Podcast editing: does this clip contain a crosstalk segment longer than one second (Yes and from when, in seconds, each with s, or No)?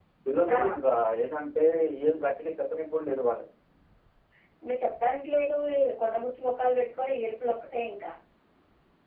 No